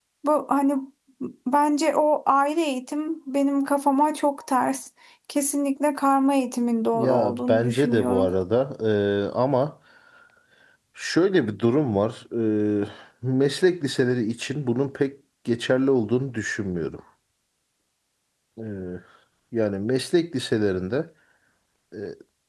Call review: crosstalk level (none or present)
present